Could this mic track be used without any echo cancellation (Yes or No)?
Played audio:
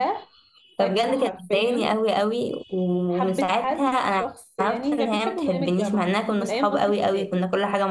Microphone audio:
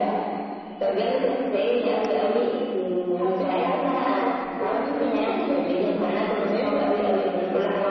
No